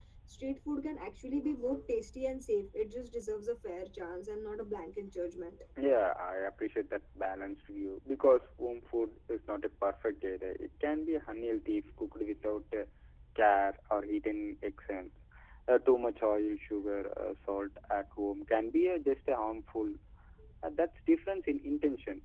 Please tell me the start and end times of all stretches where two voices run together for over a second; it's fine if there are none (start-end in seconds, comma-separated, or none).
none